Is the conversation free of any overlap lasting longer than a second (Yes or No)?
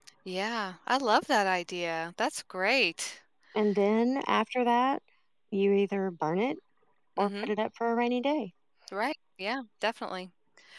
Yes